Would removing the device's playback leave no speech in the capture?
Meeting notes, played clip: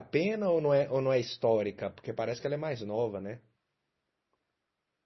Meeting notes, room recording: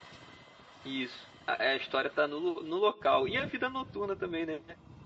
No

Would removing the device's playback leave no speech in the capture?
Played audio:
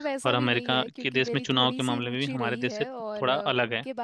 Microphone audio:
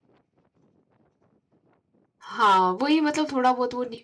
No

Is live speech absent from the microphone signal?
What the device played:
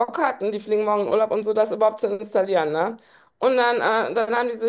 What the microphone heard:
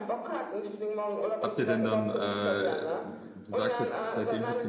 No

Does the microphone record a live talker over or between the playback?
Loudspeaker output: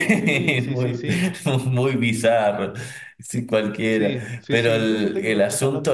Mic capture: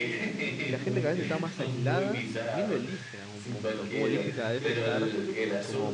Yes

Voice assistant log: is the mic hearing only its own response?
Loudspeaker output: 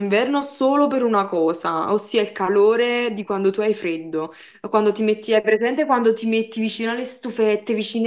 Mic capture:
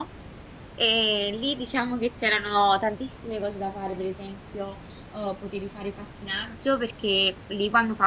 No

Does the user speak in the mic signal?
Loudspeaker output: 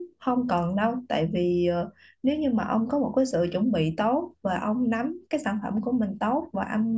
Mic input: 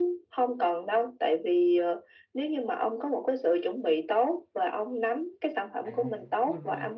Yes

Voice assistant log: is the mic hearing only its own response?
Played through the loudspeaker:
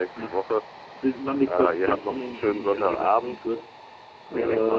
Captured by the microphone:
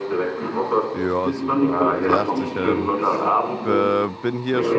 No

